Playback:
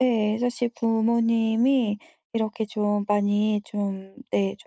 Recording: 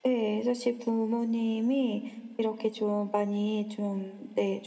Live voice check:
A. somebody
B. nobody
B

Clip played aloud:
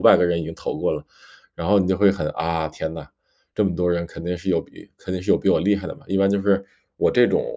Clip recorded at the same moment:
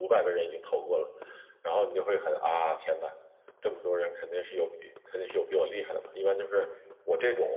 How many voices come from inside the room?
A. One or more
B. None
B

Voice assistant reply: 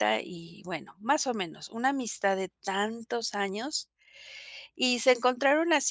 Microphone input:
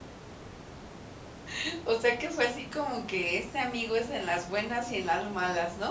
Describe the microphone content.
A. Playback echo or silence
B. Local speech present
B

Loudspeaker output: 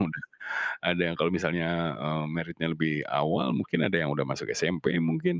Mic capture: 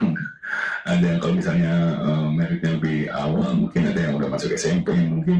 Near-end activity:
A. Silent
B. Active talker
A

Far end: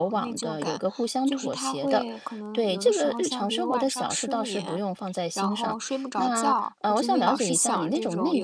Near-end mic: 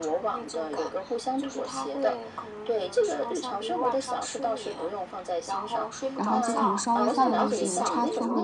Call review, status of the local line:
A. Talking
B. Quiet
A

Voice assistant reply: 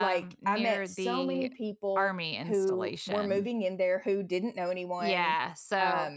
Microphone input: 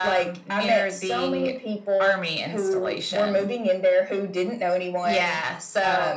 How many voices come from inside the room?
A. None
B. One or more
A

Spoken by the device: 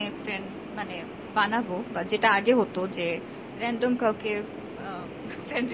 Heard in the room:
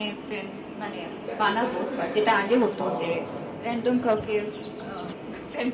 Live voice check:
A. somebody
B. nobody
A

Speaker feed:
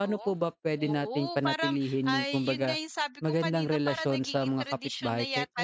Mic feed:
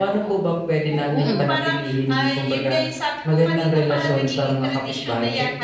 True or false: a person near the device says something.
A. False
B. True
B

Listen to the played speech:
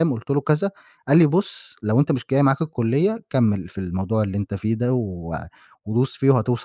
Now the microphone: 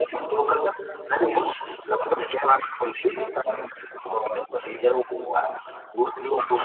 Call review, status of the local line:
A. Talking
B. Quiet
B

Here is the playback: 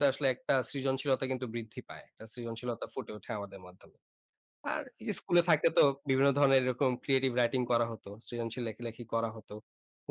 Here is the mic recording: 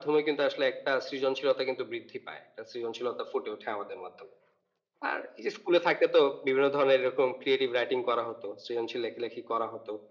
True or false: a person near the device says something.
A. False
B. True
A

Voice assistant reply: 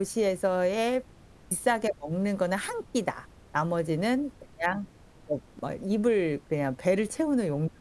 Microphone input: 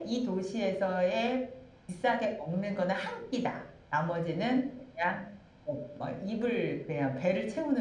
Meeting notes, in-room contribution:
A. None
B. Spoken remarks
A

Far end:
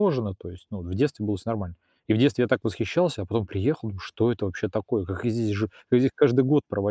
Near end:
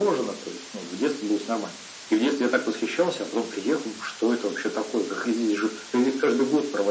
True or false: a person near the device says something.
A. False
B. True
A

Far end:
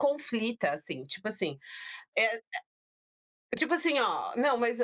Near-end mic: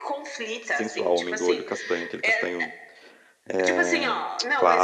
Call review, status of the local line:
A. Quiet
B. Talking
B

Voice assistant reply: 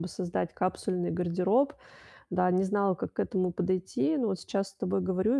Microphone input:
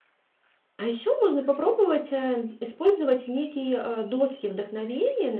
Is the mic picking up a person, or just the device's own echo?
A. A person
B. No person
A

